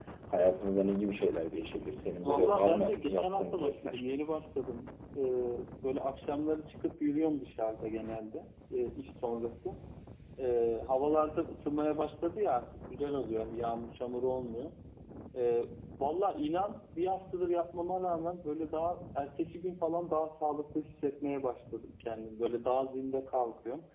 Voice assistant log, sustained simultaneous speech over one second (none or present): present